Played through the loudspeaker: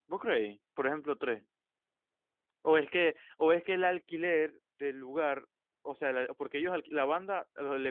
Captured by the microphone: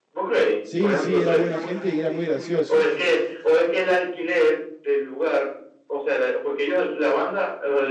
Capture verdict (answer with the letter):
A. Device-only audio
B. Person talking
B